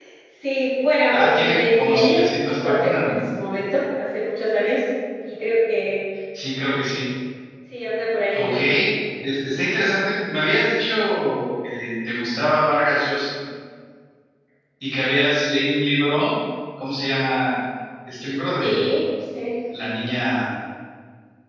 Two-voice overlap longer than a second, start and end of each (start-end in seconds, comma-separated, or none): 1.1-3.2